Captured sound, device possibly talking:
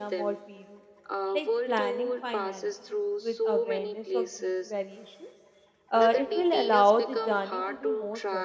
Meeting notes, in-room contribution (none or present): present